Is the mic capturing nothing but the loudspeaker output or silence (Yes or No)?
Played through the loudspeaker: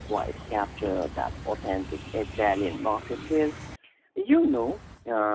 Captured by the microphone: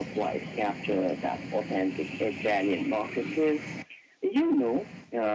Yes